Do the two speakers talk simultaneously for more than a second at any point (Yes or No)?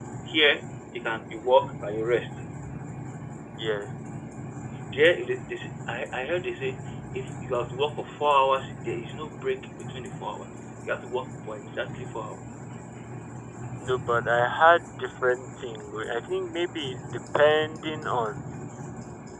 No